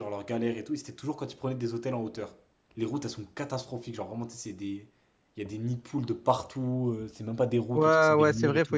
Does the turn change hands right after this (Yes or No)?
Yes